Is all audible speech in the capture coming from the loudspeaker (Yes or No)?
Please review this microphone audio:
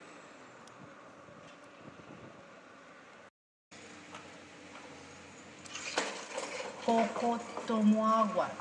No